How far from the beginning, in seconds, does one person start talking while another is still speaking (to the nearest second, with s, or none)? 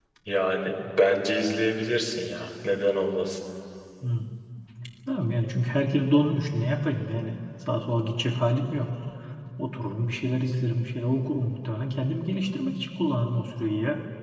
none